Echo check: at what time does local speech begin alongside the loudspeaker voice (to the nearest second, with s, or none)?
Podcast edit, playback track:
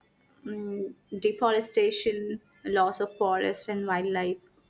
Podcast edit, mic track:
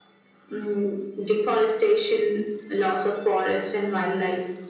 none